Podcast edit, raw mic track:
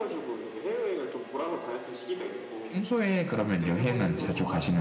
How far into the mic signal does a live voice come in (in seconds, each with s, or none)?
2.6 s